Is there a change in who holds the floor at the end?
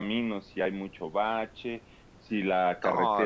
No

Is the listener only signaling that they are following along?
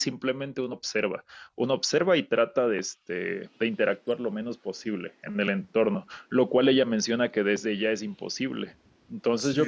Yes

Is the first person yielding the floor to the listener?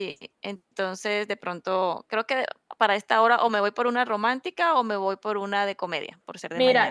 Yes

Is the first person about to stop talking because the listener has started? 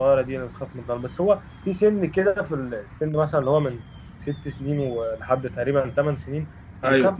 No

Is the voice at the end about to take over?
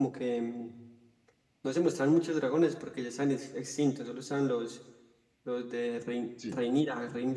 No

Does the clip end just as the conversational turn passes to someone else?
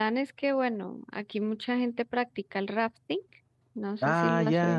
Yes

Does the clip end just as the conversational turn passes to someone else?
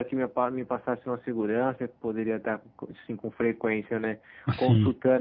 No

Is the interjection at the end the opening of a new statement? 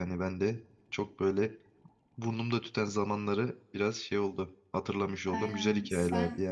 Yes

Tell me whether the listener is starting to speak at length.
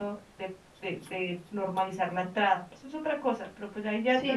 Yes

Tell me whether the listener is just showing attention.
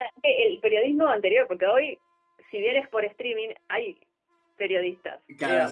No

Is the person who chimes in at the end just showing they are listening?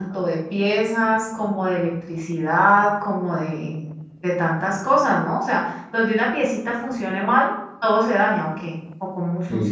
No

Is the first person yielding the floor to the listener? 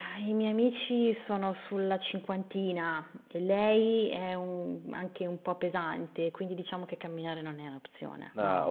Yes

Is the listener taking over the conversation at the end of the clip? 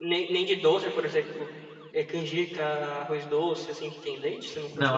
Yes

